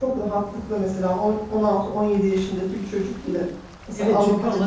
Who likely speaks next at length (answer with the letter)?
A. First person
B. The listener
B